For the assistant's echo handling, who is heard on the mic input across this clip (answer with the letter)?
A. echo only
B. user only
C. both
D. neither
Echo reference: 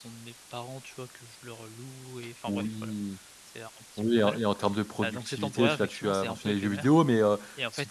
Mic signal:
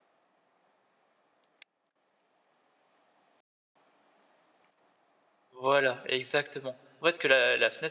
B